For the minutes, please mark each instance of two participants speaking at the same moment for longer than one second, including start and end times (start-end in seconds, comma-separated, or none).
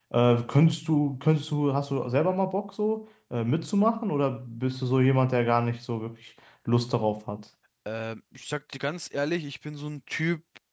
none